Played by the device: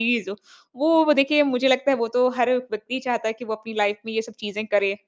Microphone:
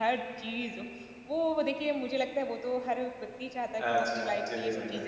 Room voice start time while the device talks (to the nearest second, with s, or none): 4 s